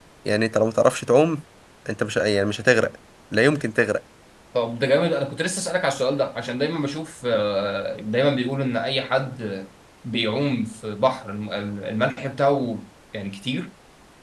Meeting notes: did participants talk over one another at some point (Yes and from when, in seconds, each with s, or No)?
No